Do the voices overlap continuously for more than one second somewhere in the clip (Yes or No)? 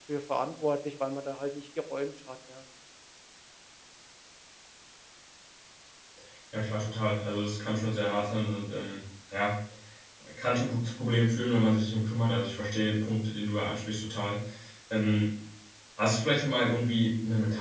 No